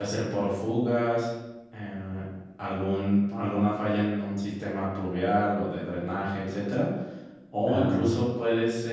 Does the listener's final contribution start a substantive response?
No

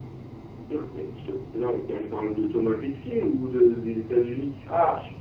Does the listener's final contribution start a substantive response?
Yes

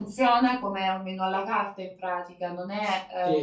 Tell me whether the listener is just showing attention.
No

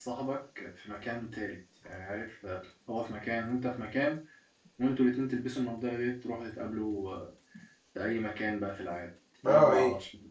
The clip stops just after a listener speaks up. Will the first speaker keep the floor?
No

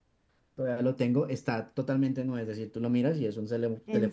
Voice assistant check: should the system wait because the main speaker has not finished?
No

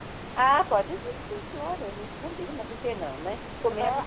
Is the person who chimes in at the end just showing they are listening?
No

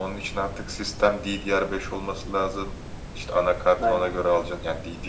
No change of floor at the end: Yes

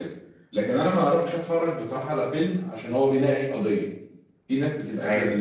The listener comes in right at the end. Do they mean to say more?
No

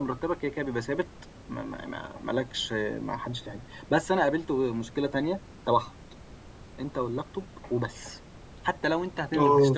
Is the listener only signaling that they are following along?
Yes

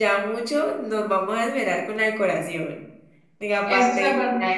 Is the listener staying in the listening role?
No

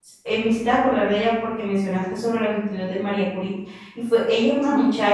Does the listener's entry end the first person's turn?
No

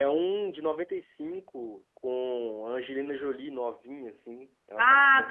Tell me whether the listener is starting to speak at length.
Yes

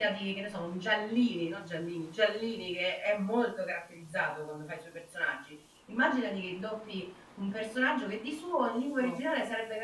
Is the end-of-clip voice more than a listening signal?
No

